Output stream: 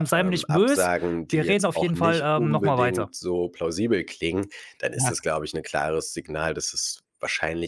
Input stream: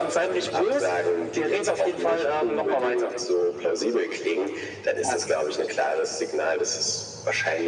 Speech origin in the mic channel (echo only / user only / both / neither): echo only